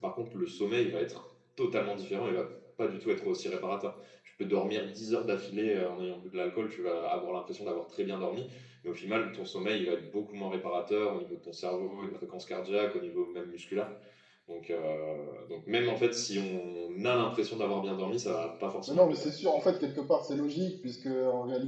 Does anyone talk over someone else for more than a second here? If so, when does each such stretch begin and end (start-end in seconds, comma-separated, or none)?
none